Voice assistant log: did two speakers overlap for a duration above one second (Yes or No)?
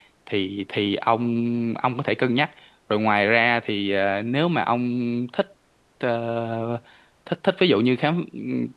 No